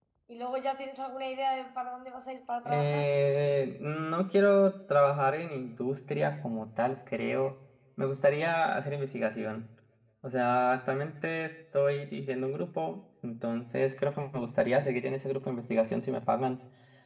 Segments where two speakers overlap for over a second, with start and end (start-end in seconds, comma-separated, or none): none